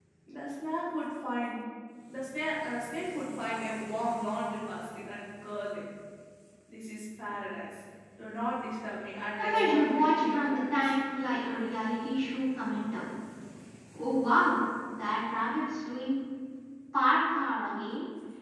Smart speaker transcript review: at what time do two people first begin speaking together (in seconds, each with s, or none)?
9.4 s